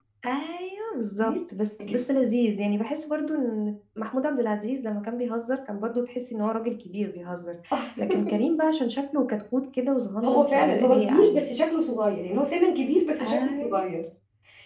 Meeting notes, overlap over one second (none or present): present